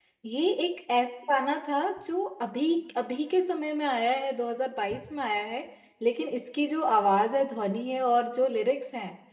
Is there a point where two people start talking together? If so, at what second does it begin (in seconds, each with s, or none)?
none